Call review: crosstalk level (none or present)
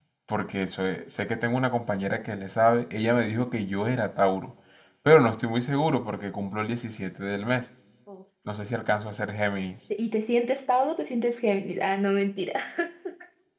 none